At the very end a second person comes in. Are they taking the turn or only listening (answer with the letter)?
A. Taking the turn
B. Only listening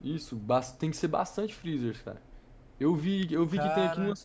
B